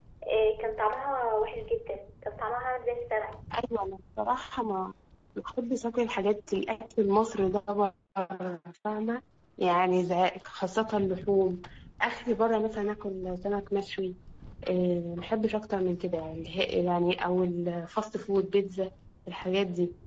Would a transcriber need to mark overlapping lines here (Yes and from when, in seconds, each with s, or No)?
No